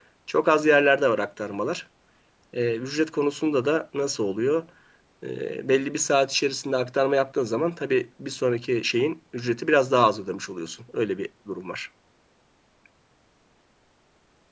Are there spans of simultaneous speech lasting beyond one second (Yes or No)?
No